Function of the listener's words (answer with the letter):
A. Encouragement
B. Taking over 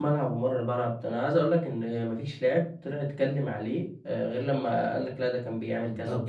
B